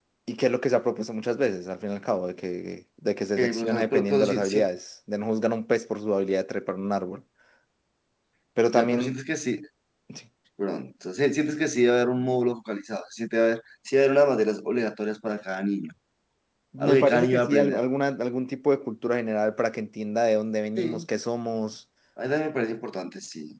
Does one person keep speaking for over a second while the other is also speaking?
Yes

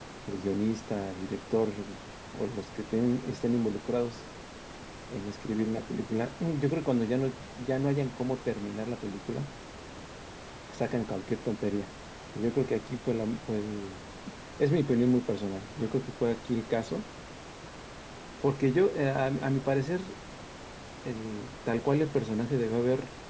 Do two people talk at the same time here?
No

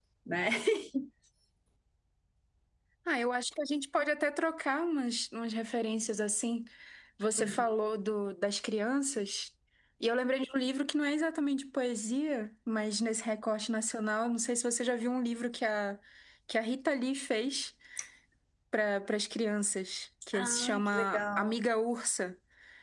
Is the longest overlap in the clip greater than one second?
Yes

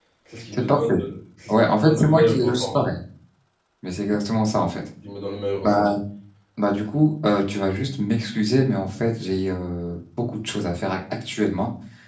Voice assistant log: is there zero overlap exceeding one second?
No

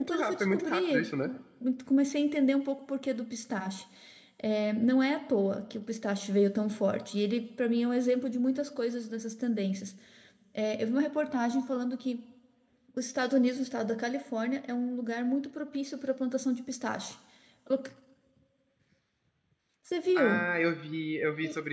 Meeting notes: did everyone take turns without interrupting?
No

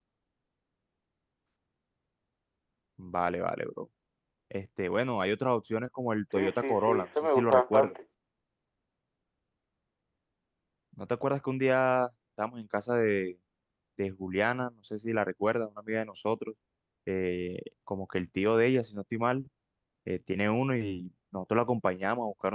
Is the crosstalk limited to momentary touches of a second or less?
No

